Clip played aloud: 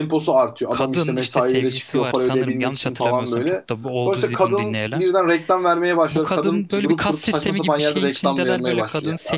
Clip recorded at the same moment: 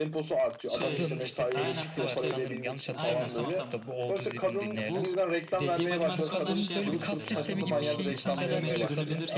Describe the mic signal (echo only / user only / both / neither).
both